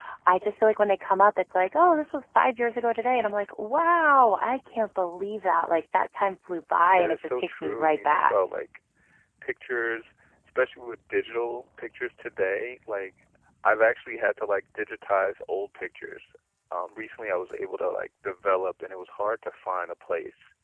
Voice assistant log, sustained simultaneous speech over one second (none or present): present